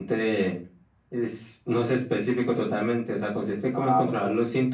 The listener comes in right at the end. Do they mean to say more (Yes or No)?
No